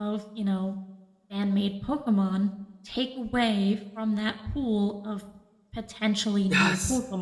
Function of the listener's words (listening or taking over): taking over